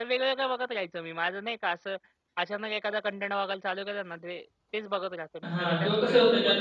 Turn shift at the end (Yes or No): Yes